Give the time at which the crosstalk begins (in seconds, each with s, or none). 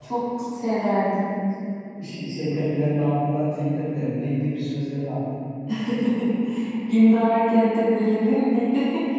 none